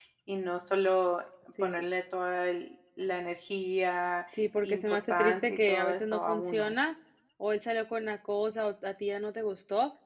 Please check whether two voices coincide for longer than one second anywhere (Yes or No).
Yes